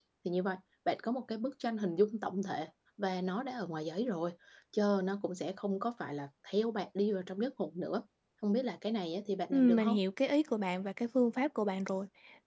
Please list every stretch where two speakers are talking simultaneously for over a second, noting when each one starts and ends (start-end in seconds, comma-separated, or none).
none